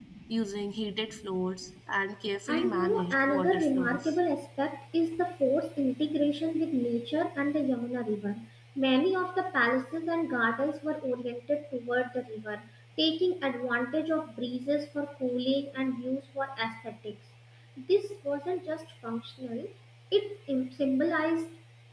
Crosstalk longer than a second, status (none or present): present